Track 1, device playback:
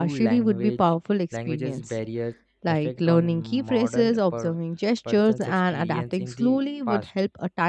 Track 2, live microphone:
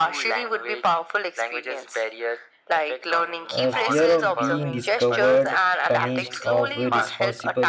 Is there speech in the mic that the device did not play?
Yes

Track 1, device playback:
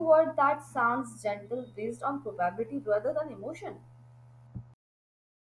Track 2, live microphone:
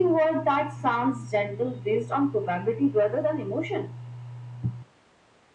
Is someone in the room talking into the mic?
No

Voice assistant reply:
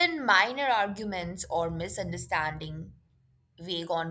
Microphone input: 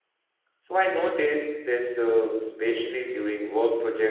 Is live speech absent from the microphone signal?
No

